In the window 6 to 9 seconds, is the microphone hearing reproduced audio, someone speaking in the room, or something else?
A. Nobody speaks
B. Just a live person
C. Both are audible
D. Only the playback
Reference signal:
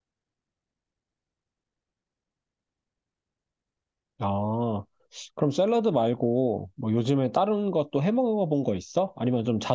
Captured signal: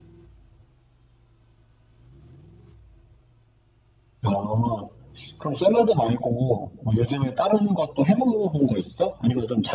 D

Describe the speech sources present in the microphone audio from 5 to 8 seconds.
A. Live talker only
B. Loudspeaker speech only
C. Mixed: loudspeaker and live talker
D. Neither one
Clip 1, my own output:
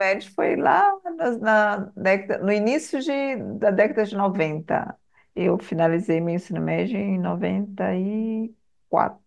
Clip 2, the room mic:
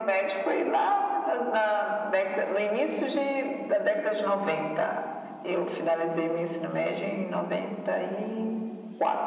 B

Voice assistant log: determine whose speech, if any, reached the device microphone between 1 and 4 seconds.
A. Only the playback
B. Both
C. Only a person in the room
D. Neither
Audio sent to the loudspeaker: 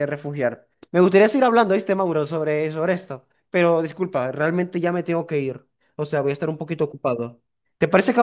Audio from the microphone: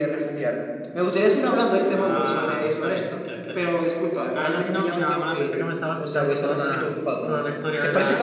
B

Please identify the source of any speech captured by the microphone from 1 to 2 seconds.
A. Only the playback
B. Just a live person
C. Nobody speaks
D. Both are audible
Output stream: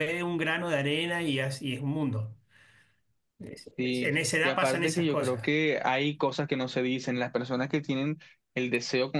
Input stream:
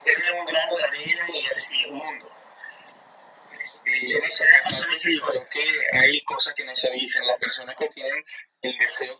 A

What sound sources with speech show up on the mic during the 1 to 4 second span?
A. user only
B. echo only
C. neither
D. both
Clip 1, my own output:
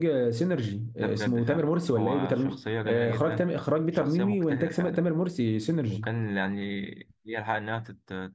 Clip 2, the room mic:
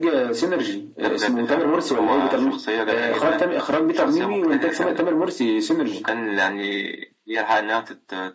B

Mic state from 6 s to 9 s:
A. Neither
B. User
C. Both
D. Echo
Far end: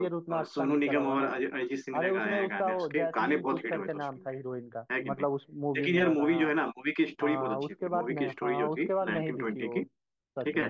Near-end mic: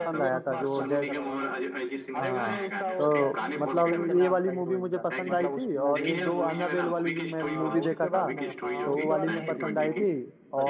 C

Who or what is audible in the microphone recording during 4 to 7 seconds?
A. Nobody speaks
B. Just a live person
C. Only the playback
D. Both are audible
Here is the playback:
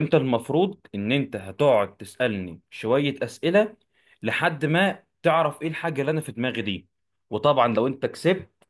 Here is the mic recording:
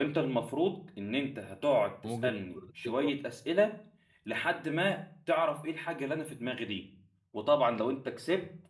C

